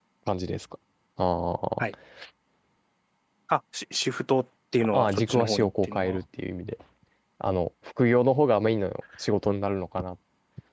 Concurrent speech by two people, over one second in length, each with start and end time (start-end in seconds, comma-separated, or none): 4.9-6.2